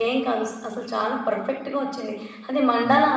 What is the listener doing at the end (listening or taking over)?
listening